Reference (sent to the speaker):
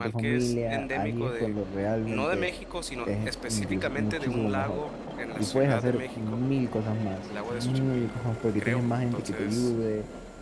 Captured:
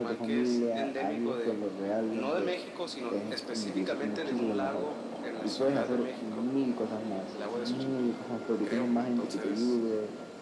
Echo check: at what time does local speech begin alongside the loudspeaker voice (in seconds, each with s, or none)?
none